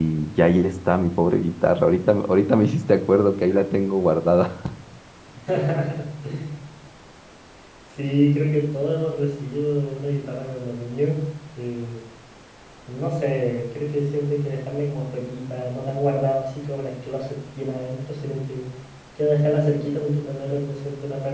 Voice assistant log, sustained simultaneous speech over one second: none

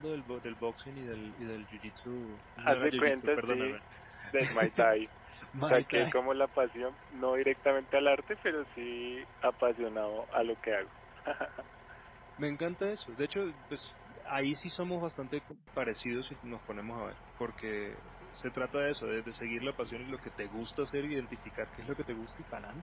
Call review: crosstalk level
present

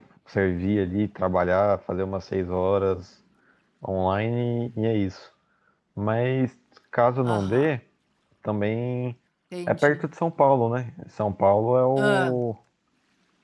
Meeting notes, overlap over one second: none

